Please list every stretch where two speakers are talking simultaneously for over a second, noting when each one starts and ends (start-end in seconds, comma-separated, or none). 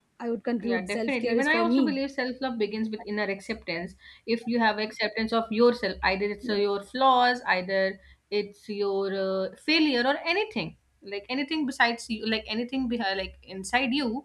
0.6-2.0